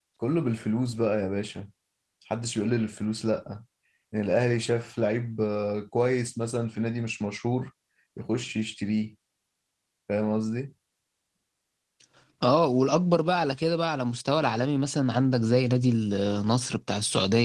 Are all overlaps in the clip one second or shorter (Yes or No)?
Yes